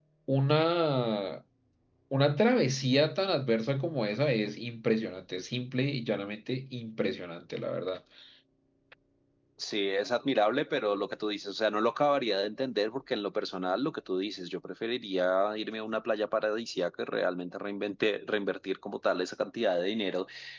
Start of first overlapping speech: none

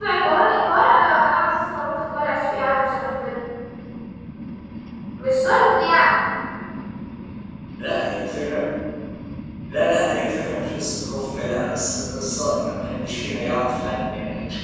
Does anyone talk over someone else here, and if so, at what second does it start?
none

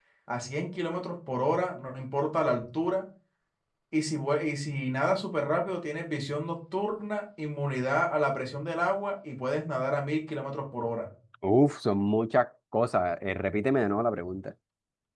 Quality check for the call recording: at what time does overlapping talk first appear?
none

